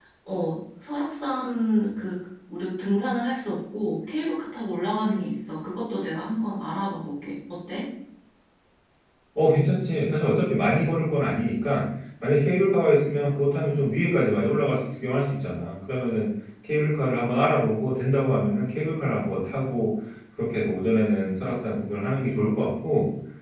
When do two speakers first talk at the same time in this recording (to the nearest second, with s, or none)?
none